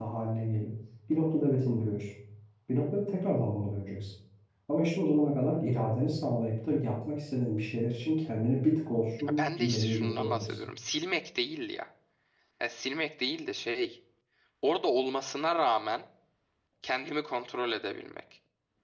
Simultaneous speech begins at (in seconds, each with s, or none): 9.2 s